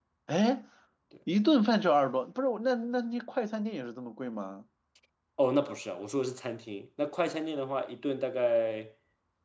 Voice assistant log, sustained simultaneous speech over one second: none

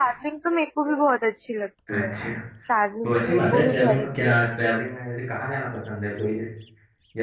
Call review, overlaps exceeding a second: present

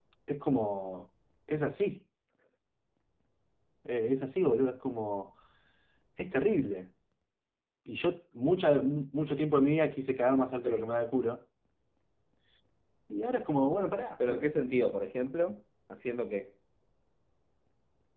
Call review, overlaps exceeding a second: none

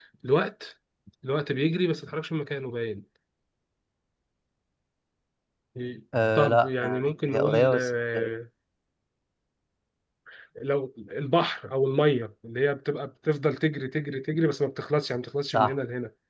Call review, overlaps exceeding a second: present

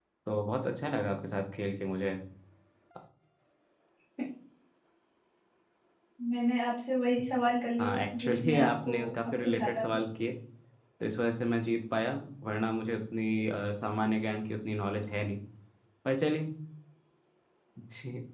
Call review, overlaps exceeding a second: present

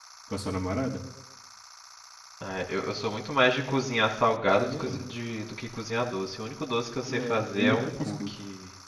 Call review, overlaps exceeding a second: present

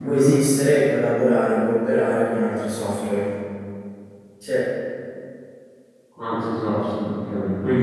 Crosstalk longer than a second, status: none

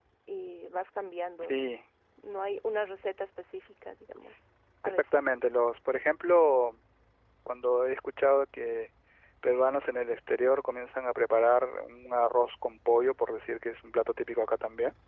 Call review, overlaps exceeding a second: none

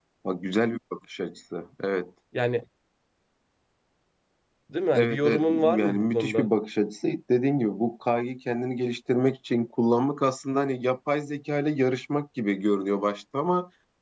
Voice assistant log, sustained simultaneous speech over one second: present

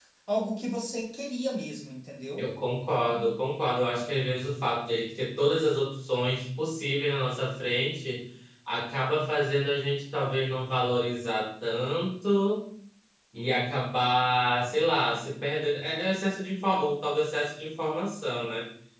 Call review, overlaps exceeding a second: none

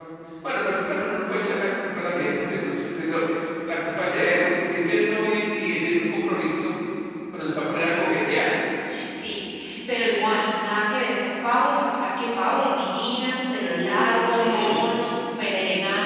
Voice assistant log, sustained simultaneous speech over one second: none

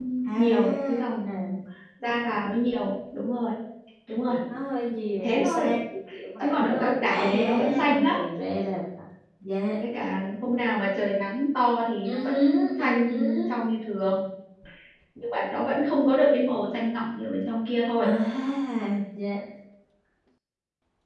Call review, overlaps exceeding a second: present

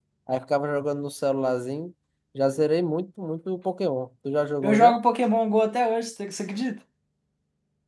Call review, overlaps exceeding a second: none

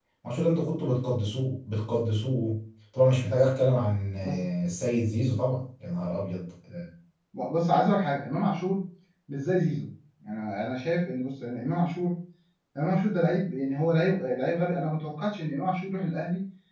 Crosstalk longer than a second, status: none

